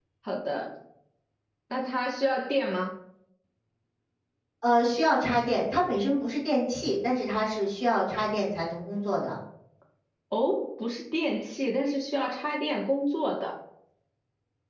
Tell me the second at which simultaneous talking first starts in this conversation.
none

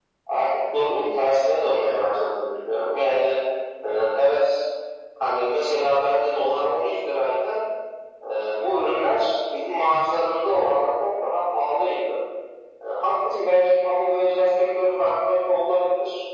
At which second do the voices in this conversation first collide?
none

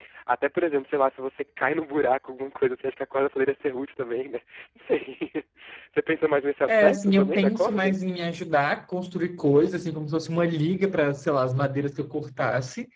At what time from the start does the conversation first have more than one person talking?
6.7 s

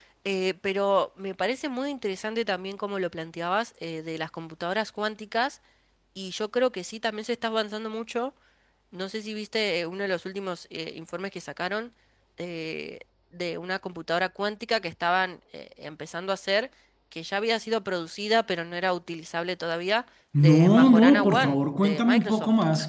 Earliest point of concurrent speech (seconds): 20.3 s

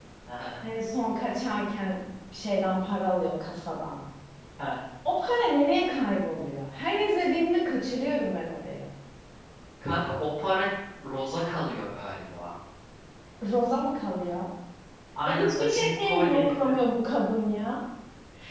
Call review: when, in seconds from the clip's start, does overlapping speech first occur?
15.2 s

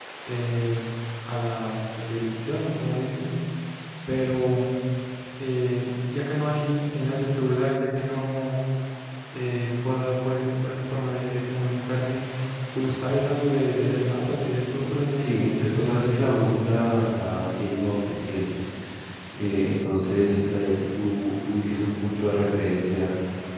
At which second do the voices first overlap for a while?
15.0 s

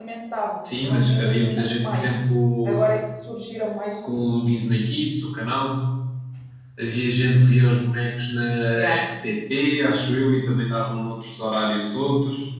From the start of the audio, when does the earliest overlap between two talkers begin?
0.8 s

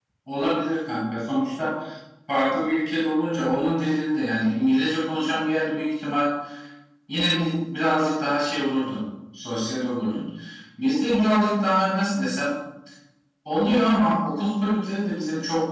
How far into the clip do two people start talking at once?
none

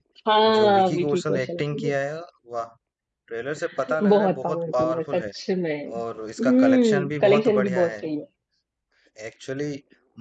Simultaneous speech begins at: 0.6 s

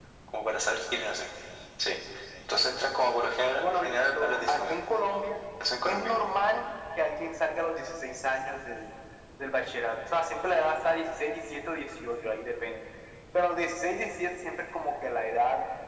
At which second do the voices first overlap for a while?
3.6 s

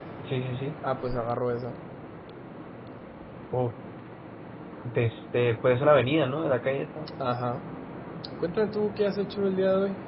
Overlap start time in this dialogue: none

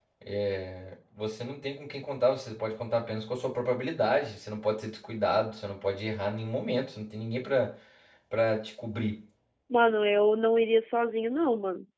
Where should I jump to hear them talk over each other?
none

